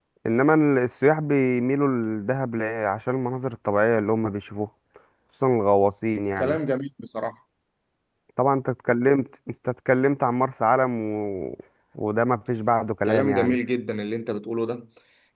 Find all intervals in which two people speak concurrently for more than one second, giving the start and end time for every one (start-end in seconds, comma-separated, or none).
none